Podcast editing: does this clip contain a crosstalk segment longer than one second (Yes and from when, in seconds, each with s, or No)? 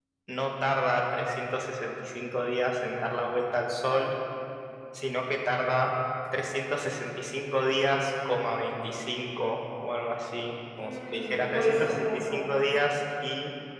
Yes, from 10.8 s